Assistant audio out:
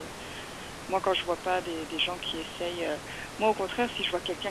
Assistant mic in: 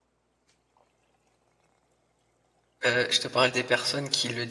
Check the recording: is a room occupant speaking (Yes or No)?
Yes